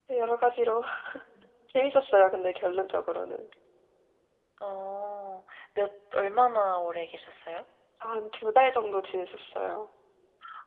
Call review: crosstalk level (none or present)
none